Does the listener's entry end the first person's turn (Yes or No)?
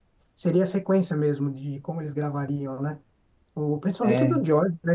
No